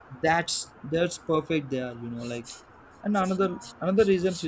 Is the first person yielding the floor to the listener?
No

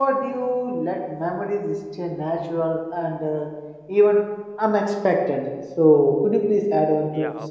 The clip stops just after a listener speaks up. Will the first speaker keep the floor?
No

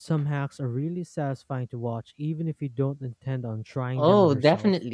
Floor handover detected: Yes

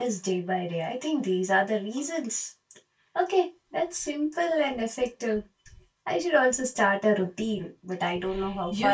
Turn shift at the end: Yes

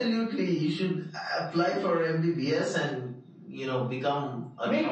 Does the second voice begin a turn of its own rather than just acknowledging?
Yes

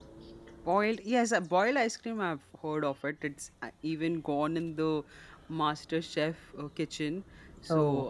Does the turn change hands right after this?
No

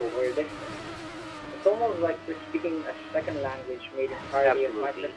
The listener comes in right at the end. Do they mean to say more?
Yes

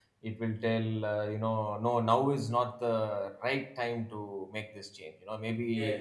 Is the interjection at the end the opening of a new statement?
No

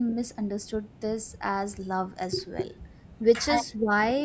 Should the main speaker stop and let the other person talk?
No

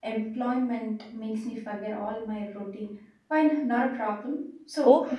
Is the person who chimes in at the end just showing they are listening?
No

